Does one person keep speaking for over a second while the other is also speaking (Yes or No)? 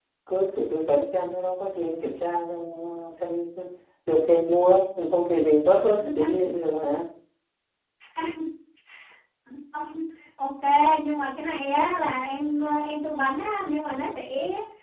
No